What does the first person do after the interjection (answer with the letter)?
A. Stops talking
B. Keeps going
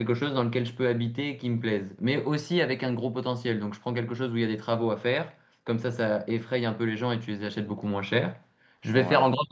B